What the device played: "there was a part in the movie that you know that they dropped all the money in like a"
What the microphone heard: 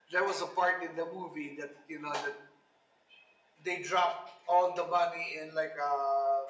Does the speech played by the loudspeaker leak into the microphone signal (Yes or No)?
Yes